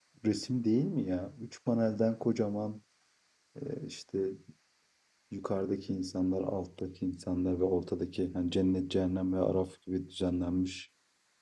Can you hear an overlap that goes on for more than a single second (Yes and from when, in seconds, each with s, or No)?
No